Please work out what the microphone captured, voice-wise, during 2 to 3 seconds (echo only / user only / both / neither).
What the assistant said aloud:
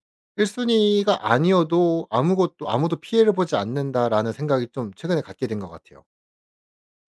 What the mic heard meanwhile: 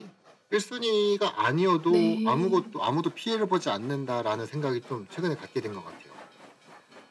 both